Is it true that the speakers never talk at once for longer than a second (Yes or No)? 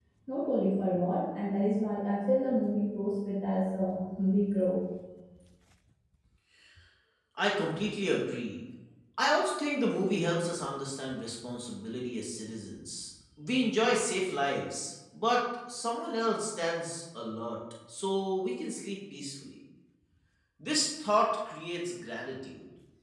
Yes